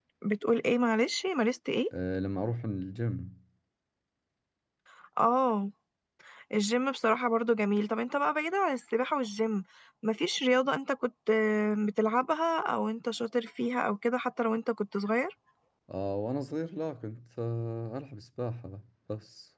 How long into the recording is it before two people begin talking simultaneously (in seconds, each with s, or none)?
none